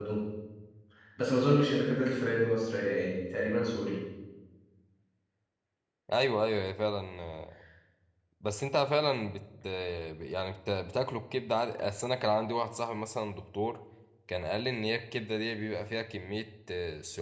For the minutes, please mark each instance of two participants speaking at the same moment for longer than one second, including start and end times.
none

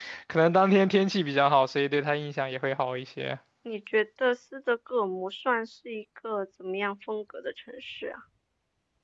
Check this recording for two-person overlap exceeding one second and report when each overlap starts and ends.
none

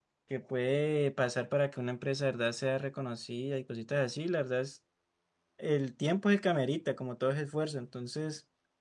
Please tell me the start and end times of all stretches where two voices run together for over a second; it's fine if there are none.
none

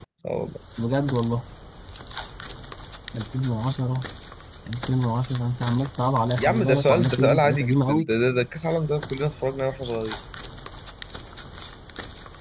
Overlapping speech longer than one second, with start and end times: 6.4-8.1

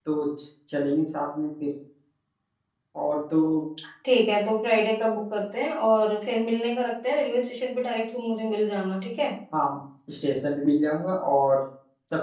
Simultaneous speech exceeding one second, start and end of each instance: none

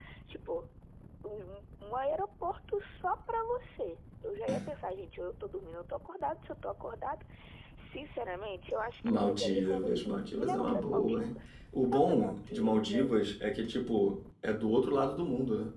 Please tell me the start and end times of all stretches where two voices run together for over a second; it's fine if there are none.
9.0-11.2, 11.9-13.3

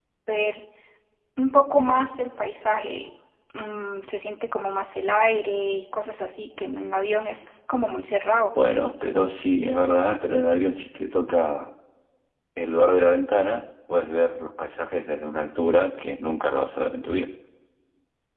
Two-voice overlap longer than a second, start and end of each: none

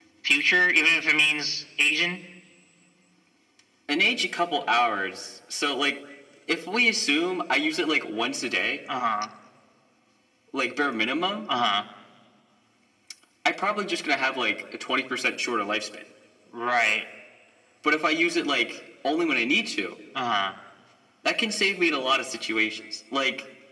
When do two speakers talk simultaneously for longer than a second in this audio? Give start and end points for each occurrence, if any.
none

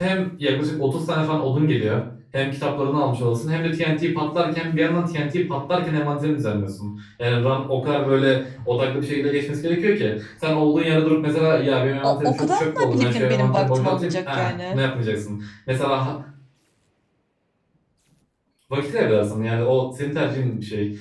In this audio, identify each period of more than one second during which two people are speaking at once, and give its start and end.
12.0-14.8

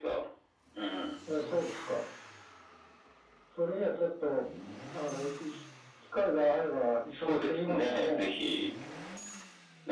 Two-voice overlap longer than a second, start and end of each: 7.1-8.4

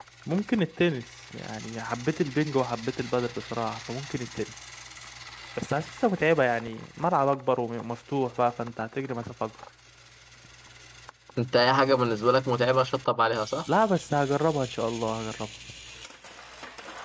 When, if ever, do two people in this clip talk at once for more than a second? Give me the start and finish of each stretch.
none

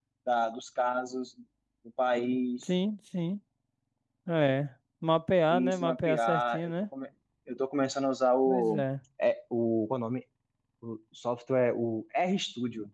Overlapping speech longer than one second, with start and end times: 5.5-6.7

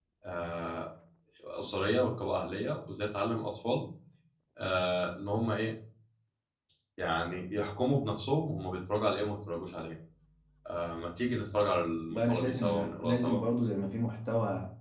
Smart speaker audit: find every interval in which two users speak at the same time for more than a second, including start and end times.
12.1-13.4

